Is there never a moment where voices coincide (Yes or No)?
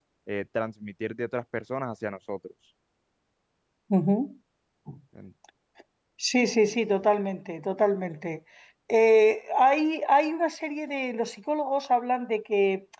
Yes